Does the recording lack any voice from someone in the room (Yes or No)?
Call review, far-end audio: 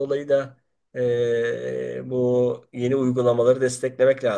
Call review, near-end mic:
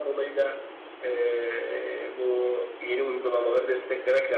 Yes